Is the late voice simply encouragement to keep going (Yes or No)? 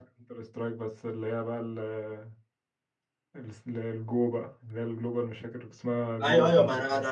No